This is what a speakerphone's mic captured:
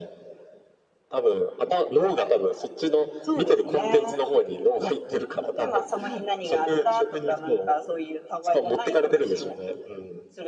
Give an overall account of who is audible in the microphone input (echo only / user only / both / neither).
echo only